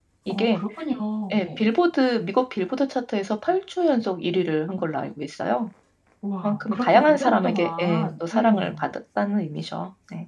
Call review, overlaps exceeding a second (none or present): present